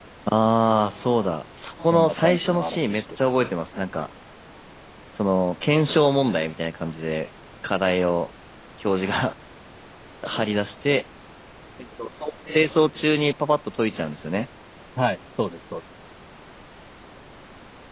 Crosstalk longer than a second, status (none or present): present